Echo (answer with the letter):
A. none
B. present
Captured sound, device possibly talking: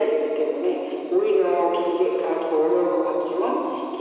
B